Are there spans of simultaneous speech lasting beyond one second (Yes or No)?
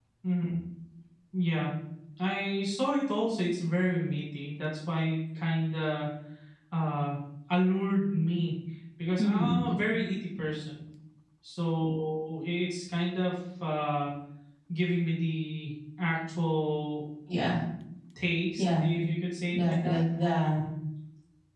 No